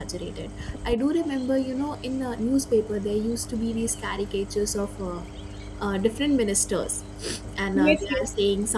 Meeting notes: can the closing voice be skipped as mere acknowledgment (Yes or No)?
Yes